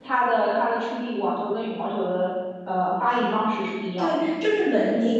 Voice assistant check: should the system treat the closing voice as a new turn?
Yes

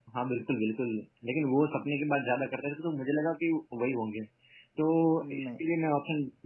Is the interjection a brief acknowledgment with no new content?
Yes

